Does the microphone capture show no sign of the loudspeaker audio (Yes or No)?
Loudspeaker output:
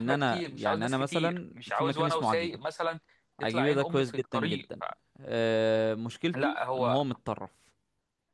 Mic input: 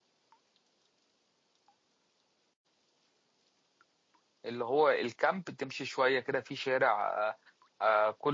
Yes